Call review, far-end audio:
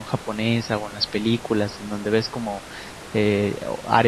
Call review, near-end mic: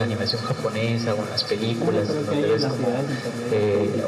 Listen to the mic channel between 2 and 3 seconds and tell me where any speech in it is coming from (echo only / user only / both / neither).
both